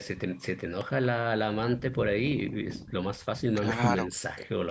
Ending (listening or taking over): taking over